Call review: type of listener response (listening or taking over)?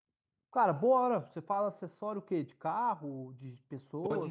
taking over